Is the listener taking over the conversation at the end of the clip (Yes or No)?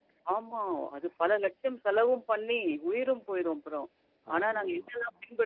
No